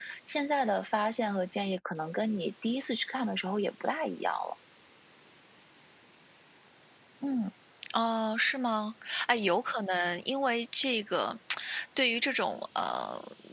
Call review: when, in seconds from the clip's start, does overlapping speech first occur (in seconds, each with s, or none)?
none